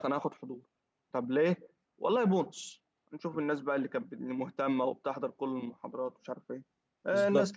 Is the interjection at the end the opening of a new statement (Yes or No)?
No